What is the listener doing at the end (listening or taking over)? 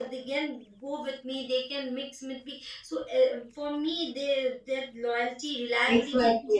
taking over